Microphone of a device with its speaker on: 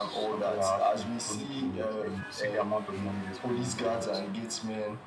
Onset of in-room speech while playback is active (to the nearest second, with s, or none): none